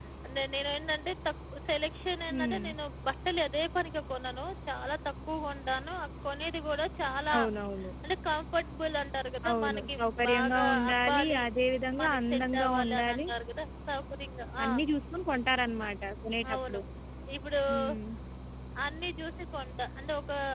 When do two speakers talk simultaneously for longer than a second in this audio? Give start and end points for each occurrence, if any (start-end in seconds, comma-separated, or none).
9.5-11.4, 12.0-13.3